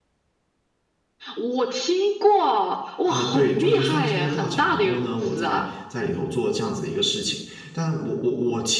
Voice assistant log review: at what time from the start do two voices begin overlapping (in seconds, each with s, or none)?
3.0 s